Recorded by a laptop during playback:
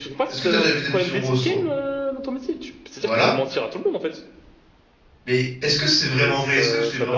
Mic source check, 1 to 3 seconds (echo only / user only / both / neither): both